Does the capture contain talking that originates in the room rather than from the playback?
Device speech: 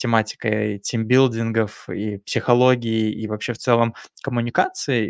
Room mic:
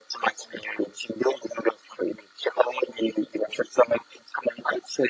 No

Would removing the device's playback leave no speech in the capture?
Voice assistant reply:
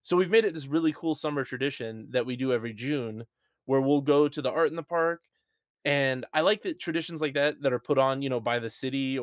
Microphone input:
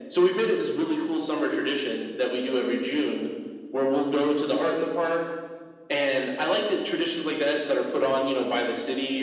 Yes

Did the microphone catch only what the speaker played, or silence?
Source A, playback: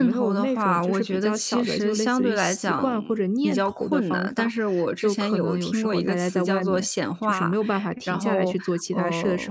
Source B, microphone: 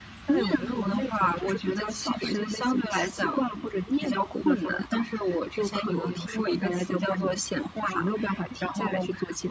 Yes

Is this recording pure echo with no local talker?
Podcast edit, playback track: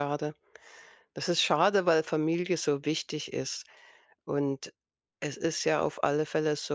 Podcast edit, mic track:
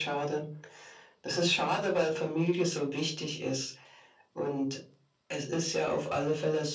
Yes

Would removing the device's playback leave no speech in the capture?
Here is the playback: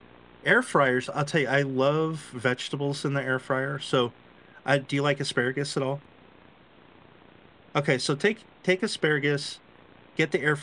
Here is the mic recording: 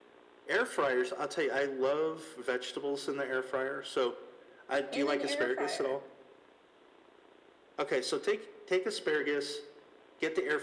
No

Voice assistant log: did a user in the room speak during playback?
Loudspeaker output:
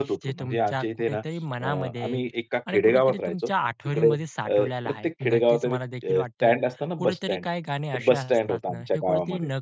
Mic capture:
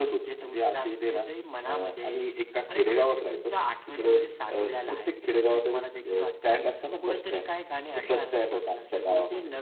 No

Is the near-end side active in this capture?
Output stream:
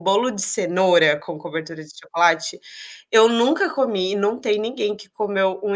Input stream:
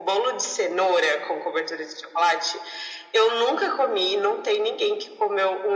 No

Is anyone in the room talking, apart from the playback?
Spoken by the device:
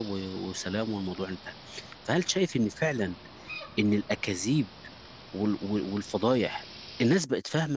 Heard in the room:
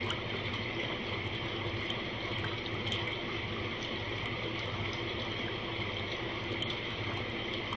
No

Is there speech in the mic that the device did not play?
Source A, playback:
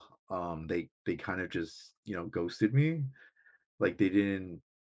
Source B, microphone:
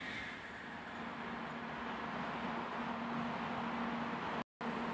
No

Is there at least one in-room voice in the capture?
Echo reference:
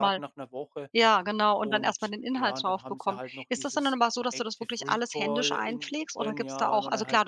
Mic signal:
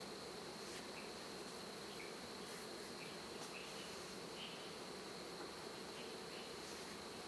No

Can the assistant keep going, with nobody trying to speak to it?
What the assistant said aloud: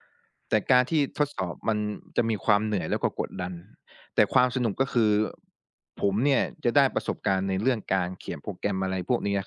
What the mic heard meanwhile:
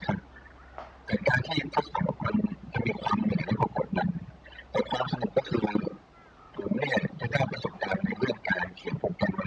Yes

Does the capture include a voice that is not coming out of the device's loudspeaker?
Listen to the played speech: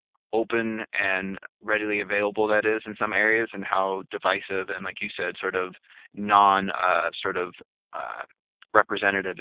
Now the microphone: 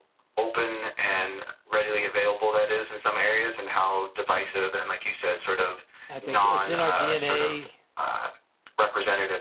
Yes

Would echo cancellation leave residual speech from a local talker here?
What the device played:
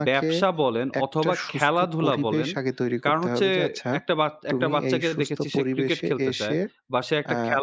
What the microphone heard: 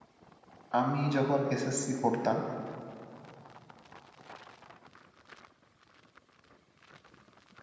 Yes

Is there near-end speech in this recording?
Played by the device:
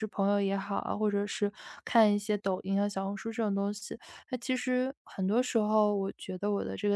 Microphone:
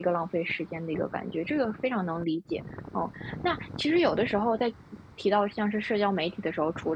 Yes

